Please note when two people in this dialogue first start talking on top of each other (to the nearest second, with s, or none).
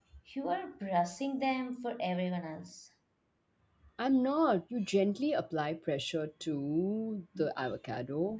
none